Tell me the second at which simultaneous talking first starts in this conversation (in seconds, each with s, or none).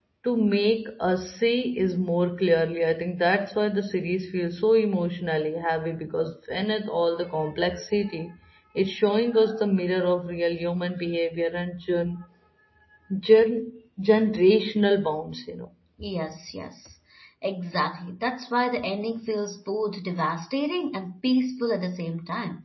none